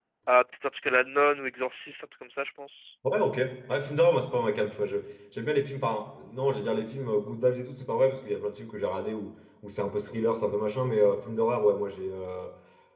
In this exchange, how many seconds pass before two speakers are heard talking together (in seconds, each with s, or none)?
none